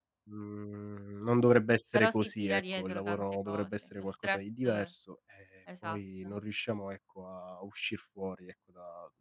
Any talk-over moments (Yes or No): Yes